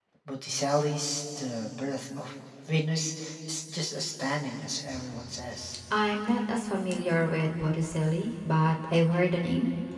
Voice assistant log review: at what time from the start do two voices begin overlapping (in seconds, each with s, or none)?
none